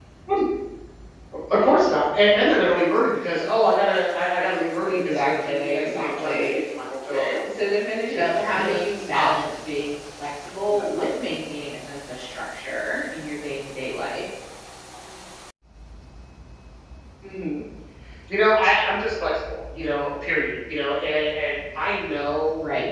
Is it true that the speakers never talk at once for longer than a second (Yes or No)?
No